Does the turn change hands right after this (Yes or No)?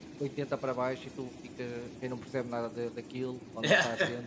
No